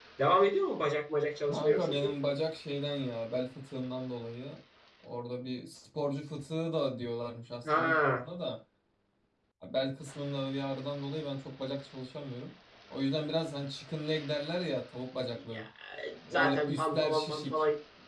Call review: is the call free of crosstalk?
No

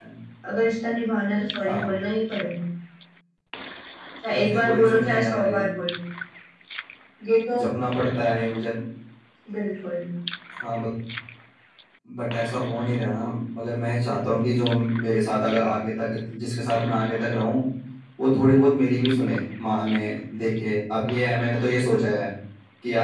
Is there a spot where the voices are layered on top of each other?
Yes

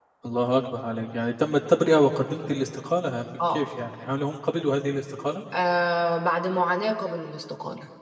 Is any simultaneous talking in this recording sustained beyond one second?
No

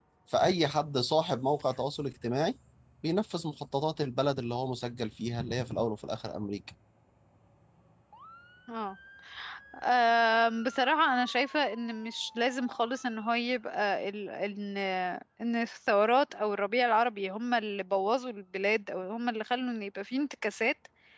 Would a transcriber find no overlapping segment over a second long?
Yes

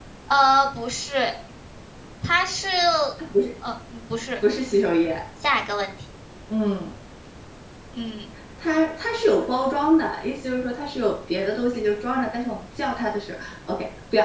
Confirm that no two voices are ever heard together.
Yes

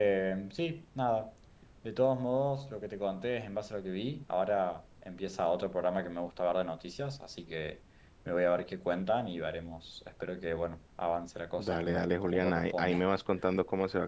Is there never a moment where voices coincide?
No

